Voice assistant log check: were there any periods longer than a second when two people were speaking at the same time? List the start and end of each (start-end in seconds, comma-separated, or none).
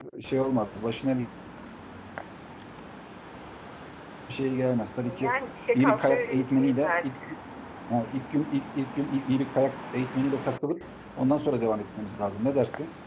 5.7-7.1